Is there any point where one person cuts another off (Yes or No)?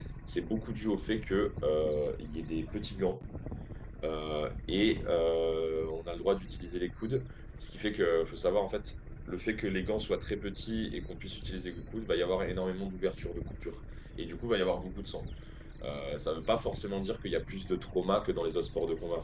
No